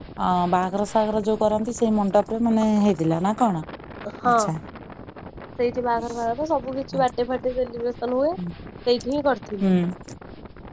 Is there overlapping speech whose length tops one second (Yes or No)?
No